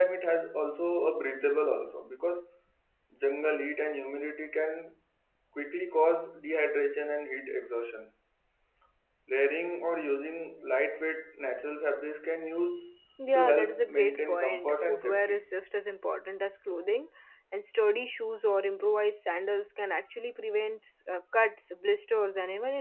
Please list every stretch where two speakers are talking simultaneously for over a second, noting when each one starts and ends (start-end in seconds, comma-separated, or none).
13.3-15.4